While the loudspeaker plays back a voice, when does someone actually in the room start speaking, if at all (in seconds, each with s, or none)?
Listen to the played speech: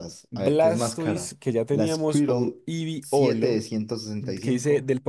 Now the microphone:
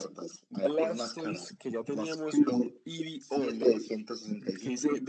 none